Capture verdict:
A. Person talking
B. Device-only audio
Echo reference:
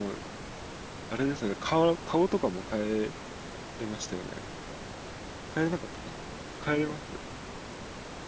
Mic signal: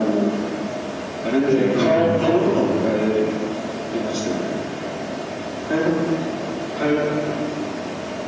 A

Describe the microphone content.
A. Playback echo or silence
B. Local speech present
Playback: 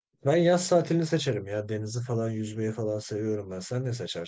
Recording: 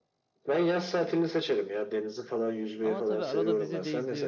B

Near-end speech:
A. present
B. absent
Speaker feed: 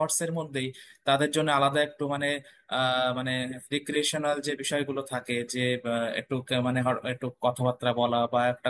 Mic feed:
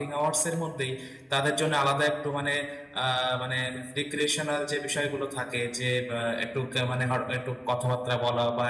B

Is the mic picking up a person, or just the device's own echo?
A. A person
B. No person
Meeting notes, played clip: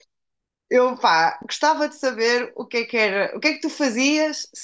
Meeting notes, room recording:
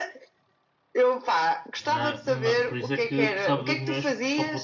A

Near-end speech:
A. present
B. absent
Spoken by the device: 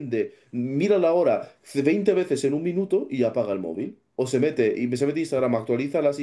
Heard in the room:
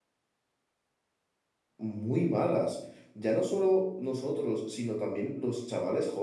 A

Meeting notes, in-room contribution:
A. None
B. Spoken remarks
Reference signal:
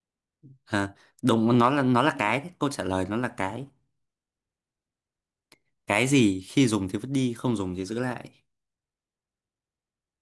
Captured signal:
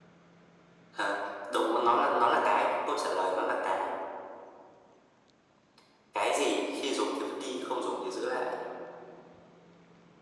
A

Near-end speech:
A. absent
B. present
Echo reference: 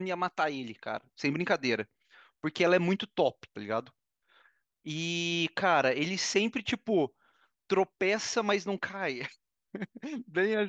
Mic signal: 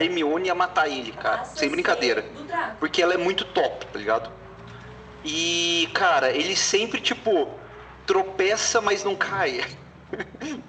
B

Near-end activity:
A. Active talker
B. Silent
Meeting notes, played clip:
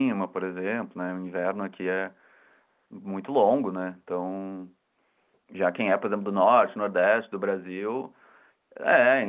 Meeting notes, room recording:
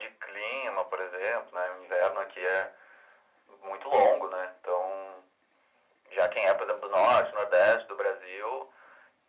B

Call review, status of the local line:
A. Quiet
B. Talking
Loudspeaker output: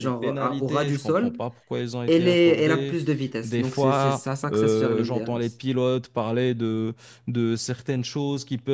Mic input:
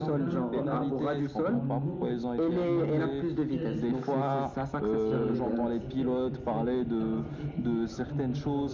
B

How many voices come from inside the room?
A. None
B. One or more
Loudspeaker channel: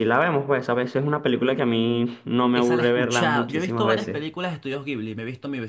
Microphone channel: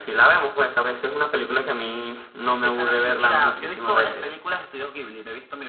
B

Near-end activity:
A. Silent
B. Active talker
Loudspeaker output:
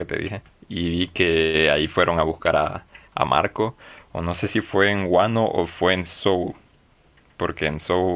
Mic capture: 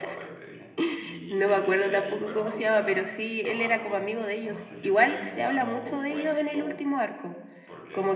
B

